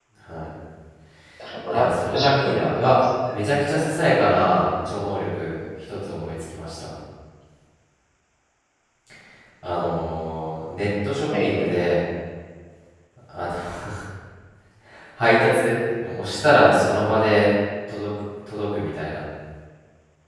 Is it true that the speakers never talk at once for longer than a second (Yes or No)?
No